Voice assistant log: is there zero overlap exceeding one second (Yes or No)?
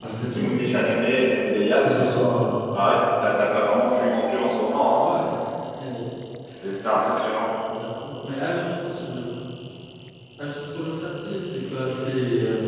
Yes